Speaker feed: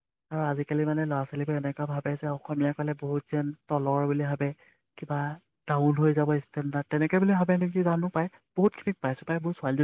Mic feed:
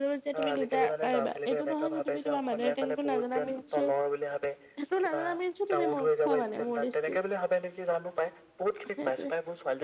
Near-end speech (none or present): present